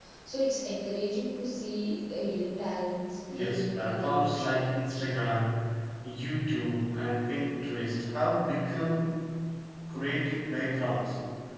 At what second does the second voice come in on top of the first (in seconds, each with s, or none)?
3.3 s